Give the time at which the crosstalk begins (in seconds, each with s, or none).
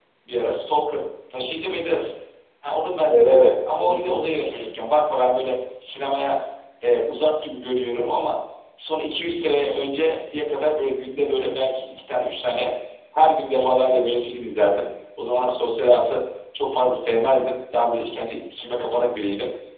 3.1 s